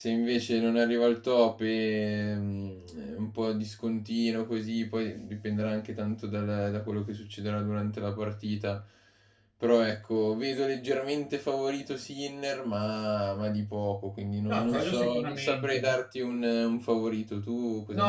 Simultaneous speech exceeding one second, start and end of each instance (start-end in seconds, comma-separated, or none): 14.5-15.8